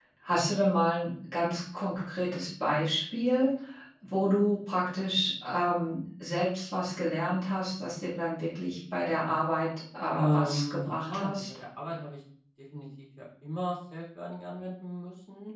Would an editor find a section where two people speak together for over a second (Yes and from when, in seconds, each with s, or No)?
Yes, from 10.1 s